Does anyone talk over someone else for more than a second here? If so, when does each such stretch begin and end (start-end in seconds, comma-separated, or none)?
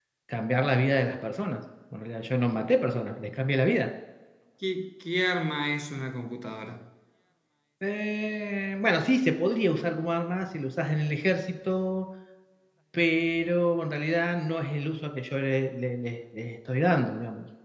none